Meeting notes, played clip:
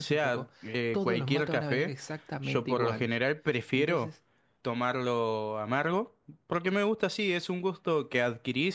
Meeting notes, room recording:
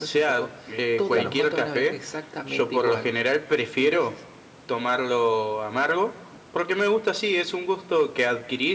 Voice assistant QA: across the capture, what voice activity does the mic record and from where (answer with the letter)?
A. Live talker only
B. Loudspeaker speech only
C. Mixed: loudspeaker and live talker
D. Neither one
C